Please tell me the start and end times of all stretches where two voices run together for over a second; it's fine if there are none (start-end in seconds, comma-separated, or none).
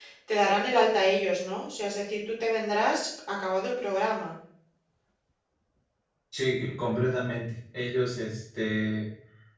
none